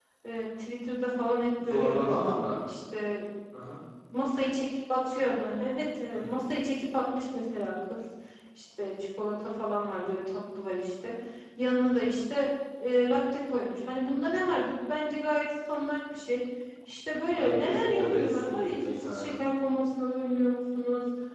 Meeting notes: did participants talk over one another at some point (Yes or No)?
Yes